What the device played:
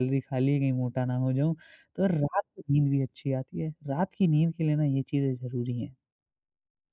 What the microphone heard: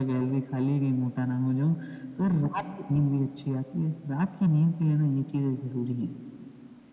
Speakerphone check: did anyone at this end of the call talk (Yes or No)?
No